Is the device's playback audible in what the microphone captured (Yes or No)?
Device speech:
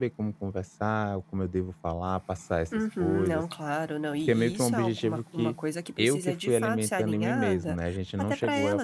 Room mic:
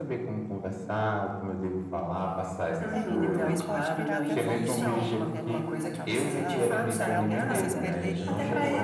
Yes